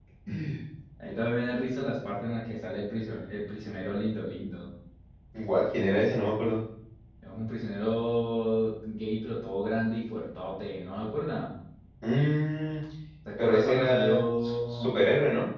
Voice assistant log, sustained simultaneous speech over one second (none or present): present